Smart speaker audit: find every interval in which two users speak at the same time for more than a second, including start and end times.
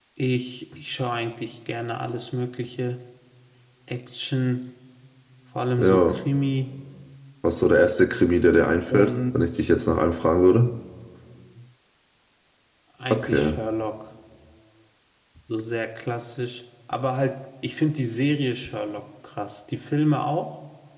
none

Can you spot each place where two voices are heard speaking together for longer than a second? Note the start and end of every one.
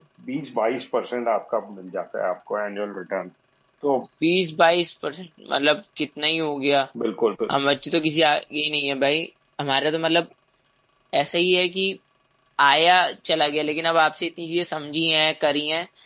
none

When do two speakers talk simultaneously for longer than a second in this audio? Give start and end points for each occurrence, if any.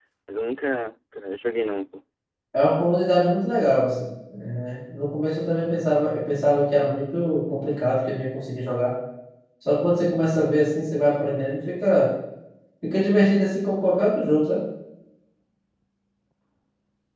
none

